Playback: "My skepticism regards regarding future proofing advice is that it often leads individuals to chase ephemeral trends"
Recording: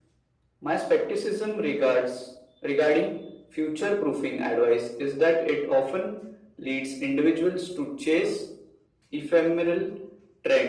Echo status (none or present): present